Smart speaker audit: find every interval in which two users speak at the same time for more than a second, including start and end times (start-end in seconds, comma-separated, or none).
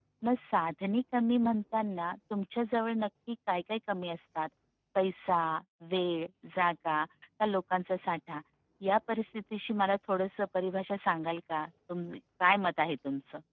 none